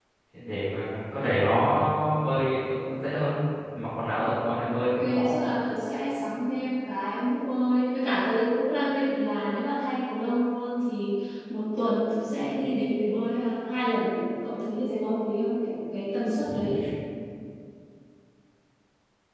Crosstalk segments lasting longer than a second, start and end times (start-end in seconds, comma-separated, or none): none